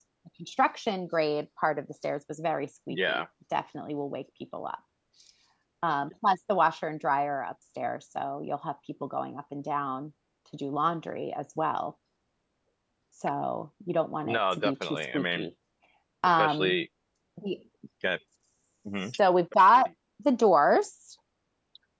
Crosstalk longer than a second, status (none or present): present